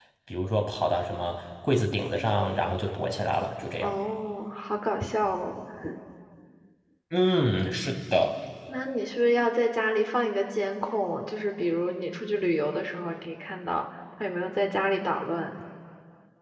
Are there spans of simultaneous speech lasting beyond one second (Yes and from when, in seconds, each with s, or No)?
No